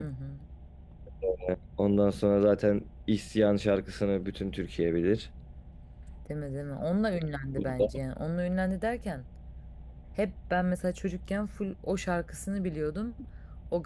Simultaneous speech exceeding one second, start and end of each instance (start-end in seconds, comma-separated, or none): none